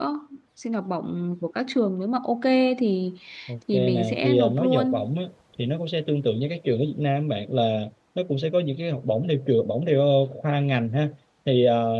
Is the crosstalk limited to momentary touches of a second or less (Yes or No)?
No